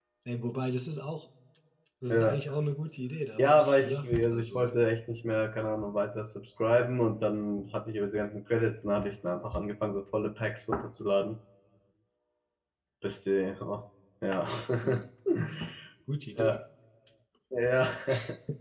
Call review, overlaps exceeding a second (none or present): present